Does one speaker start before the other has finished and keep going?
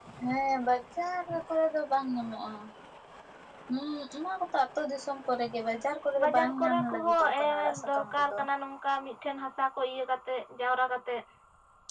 Yes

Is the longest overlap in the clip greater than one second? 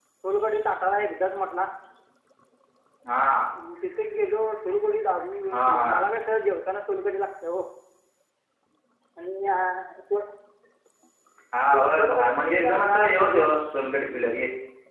Yes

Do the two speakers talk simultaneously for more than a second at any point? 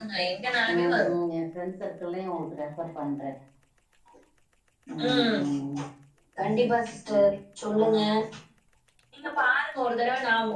No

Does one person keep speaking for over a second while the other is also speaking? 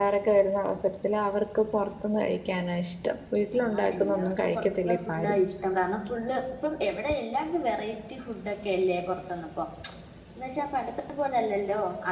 Yes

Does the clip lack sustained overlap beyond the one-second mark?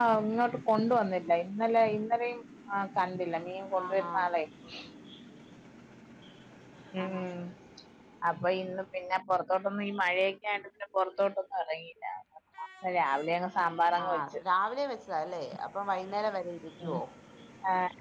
Yes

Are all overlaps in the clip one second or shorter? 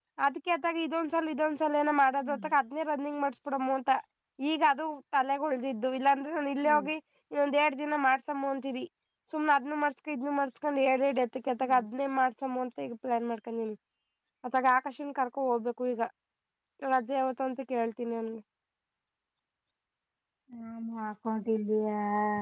Yes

